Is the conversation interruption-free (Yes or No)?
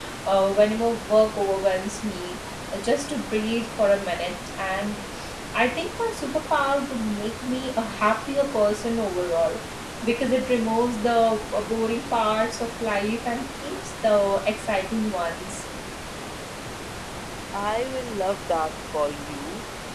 Yes